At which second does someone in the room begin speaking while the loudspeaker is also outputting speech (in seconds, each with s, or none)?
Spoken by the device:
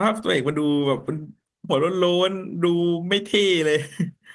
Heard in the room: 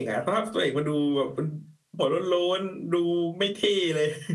none